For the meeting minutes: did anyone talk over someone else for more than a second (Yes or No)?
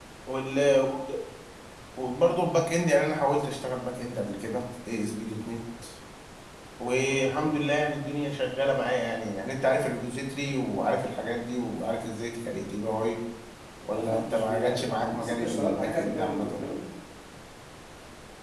Yes